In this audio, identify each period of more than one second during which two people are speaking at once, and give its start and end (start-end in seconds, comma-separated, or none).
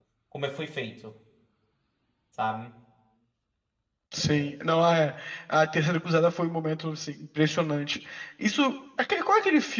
none